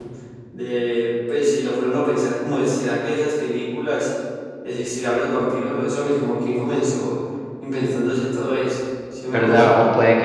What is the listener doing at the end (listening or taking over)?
taking over